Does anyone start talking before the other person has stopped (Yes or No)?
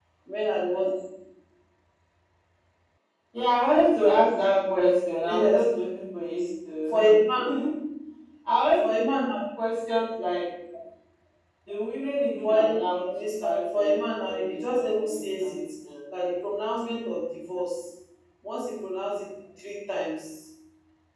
Yes